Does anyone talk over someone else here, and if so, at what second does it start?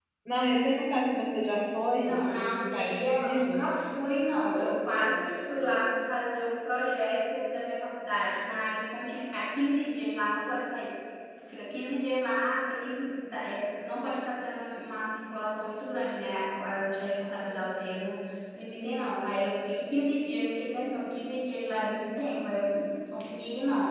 2.0 s

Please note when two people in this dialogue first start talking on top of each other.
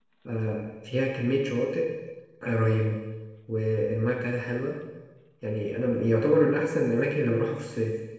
none

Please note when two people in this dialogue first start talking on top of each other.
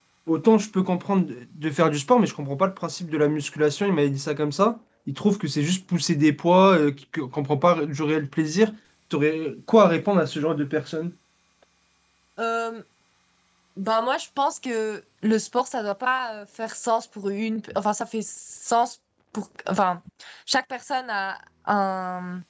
none

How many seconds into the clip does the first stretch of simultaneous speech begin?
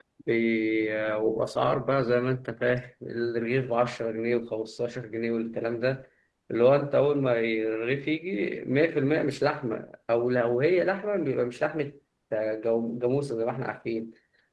none

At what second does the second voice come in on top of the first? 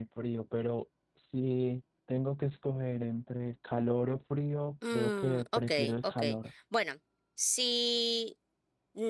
4.8 s

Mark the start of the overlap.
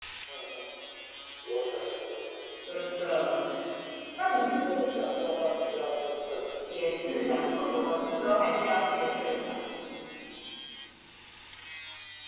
none

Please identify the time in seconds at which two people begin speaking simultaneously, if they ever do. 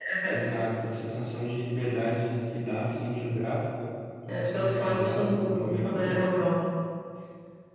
4.3 s

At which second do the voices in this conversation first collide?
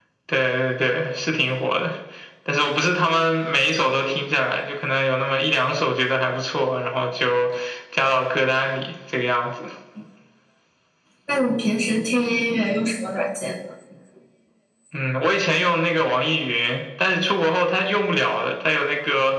none

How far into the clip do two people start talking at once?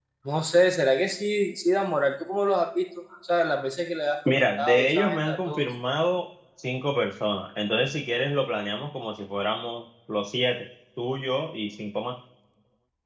4.2 s

